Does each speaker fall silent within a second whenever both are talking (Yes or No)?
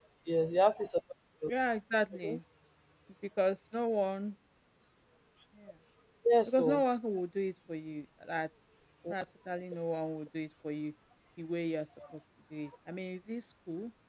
Yes